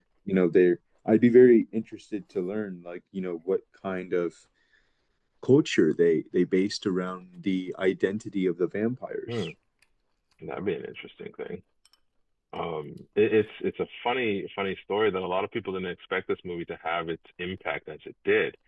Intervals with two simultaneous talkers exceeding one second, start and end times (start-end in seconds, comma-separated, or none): none